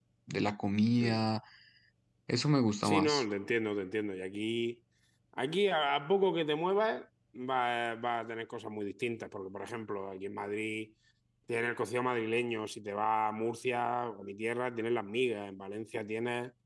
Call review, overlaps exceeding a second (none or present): none